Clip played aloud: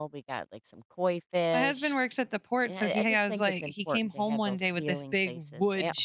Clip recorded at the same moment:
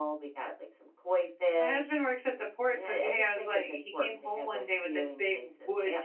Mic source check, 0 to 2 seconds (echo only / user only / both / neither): echo only